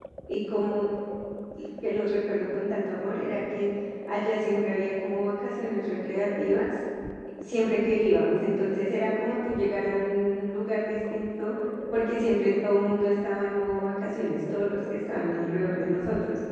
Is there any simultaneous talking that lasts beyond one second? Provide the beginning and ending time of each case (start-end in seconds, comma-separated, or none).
none